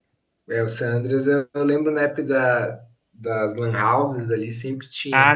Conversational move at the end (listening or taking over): taking over